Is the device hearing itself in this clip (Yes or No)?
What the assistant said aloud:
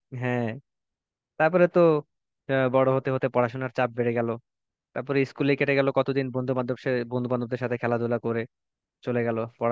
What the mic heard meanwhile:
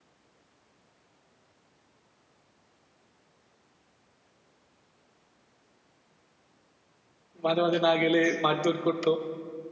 No